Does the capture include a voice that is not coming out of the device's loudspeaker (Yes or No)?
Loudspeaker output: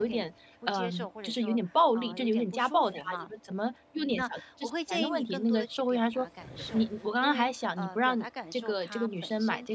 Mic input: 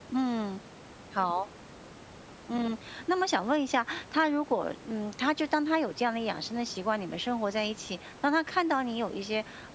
Yes